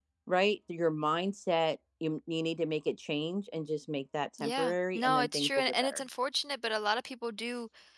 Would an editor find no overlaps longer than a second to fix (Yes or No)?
No